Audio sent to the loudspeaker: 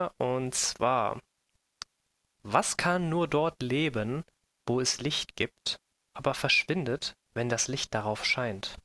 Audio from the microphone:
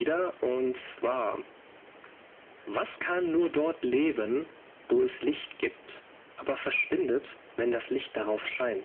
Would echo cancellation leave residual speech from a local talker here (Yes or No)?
No